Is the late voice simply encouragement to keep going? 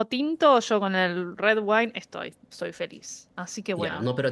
No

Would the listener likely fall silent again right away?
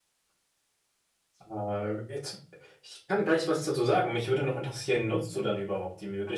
Yes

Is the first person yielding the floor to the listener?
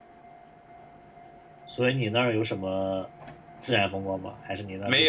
Yes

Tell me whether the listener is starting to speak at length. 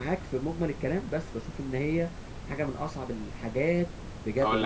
Yes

